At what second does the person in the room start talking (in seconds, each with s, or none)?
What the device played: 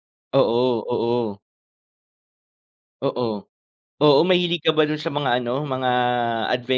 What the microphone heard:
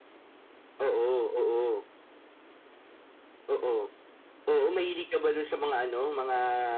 none